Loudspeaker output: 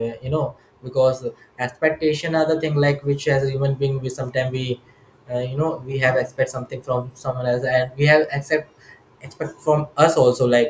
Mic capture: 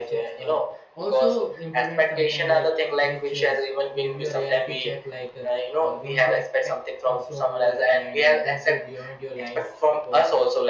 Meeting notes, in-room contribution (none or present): present